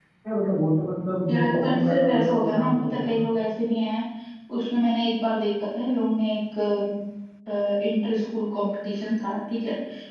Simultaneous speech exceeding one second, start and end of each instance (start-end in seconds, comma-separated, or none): 1.3-3.2